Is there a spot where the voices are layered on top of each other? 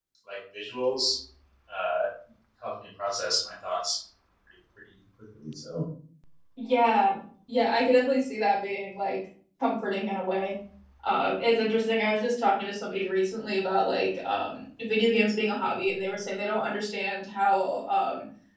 No

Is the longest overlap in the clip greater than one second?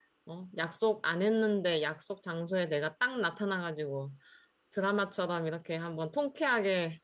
No

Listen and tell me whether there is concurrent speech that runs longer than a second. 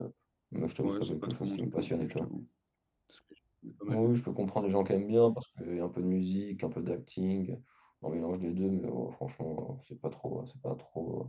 Yes, from 0.8 s

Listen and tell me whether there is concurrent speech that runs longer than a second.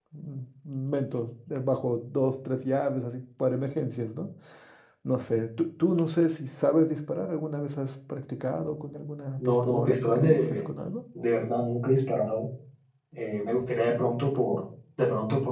Yes, from 9.4 s

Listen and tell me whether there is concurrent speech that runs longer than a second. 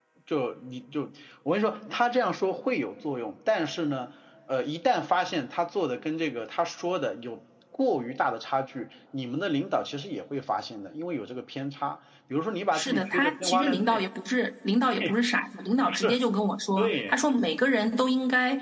Yes, from 12.7 s

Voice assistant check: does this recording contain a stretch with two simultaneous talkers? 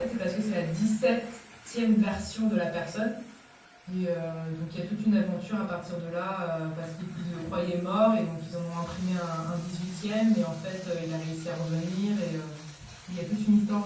No

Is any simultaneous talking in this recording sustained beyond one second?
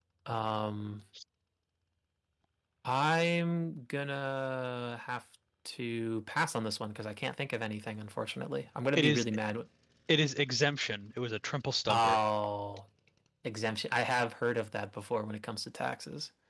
No

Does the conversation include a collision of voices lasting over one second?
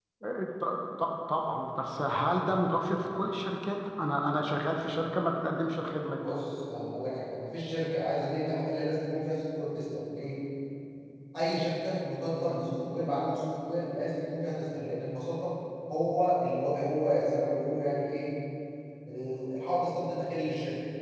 No

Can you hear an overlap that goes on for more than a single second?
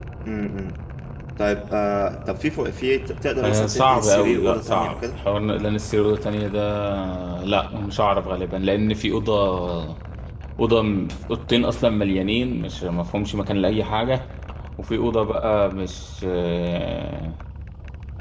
Yes, from 3.4 s

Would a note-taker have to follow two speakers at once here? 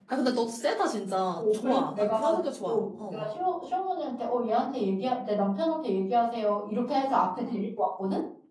Yes, from 1.6 s

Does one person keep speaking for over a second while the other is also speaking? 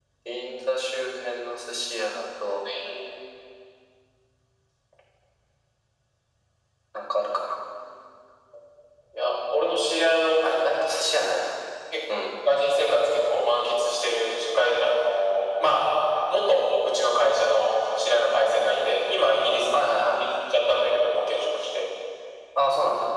No

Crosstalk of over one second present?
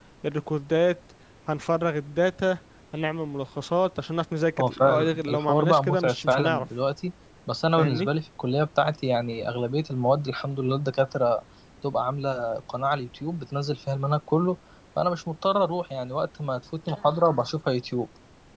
Yes, from 4.6 s

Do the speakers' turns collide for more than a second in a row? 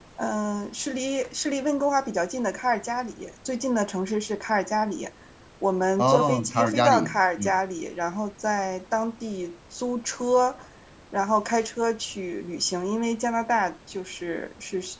Yes, from 6.0 s

